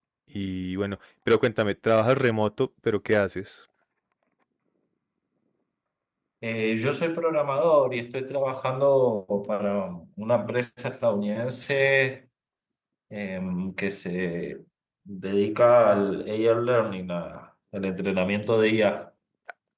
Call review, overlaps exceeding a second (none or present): none